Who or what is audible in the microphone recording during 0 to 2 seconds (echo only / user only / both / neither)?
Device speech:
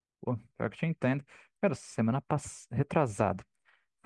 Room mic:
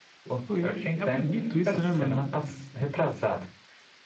both